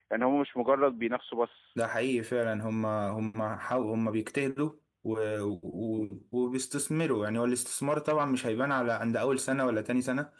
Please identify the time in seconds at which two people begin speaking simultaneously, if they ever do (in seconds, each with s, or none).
none